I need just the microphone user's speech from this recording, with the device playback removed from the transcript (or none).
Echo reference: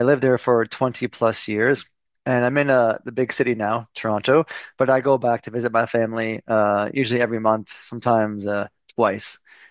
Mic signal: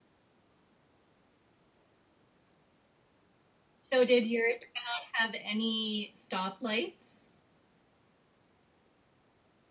So did your town have any stoplights?